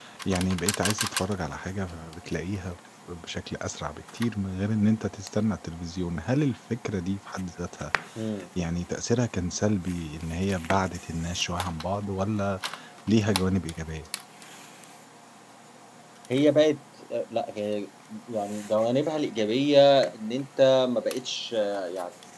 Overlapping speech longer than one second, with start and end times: none

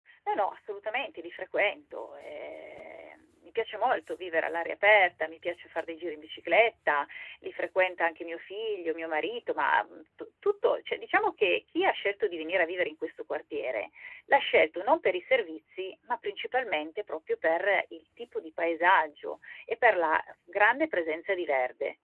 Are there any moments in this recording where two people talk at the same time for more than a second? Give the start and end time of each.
none

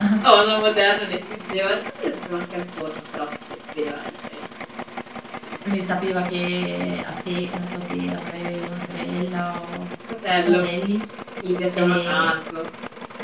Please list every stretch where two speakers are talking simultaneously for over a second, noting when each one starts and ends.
none

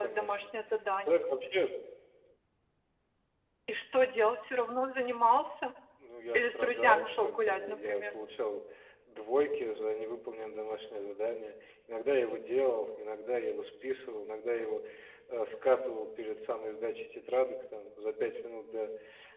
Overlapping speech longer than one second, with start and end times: 6.3-8.0

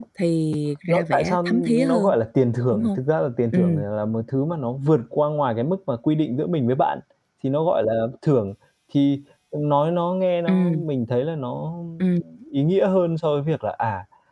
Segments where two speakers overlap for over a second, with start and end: 0.9-2.1

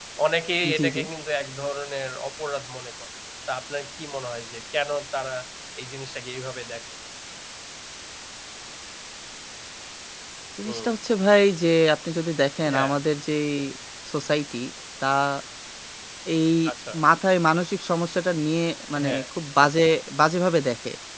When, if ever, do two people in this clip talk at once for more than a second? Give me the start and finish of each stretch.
none

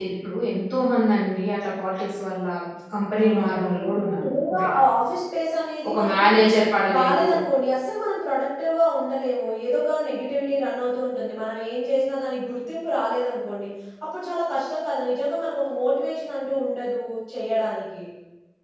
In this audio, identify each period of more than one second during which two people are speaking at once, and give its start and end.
3.1-4.7

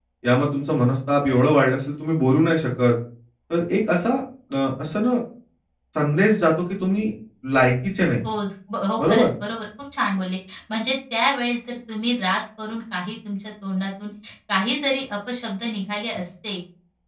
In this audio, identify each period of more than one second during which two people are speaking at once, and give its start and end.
none

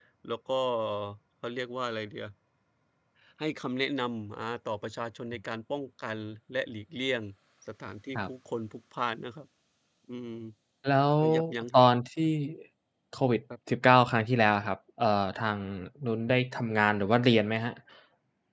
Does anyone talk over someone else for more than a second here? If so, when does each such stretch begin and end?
none

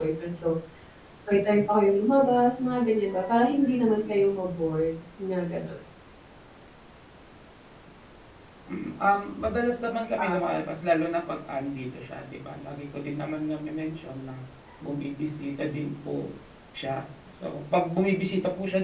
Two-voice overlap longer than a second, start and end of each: none

